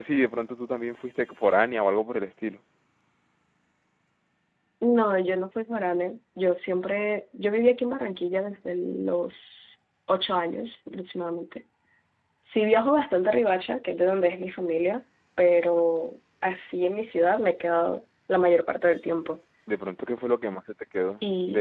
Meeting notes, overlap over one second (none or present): none